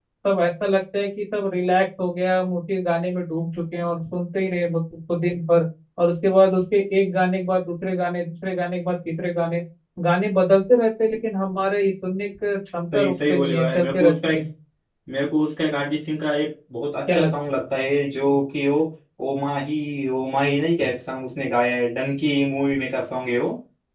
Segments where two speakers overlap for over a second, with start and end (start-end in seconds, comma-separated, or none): 12.9-14.4